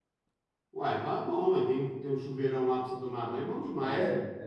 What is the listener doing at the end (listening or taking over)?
taking over